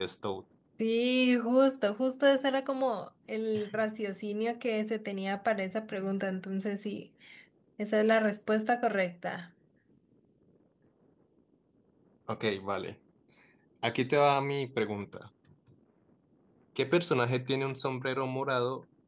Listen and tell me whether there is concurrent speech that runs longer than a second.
No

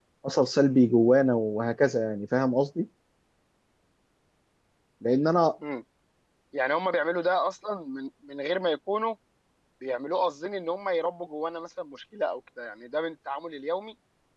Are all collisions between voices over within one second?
Yes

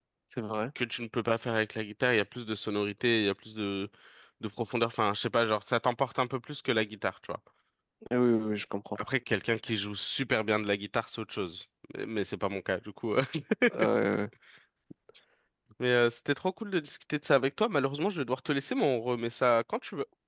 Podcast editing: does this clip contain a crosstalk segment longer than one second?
No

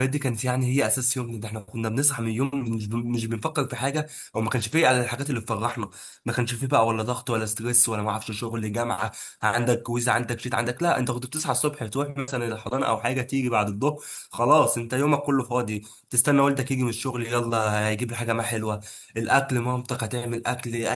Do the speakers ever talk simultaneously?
No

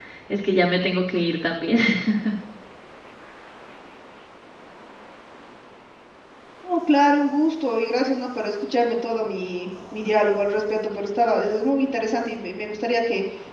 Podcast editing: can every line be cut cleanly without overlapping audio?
Yes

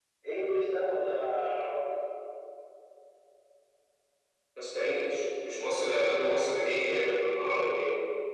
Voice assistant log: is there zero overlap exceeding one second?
Yes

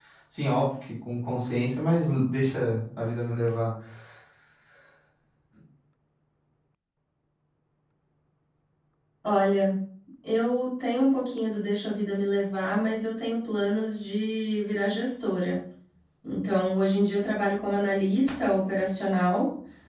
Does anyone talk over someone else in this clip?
No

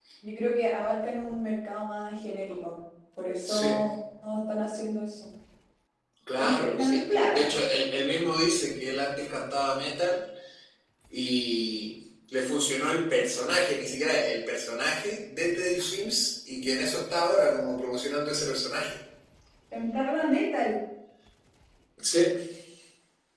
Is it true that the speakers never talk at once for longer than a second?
No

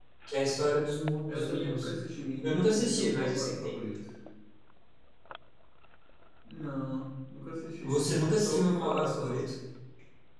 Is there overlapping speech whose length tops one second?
Yes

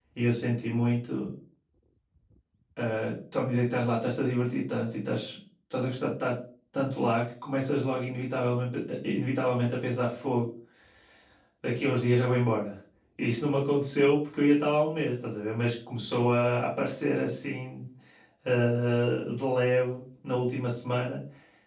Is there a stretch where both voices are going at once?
No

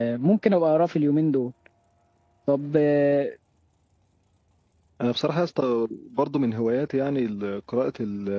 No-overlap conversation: Yes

